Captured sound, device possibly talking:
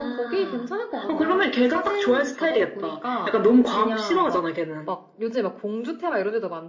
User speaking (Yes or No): No